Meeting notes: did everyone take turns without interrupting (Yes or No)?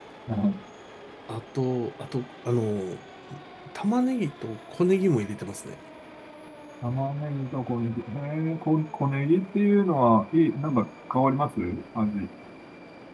Yes